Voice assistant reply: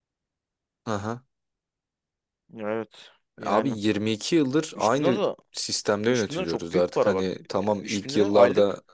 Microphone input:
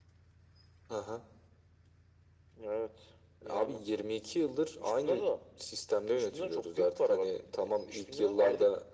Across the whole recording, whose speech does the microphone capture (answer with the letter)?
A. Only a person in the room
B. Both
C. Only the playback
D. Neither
C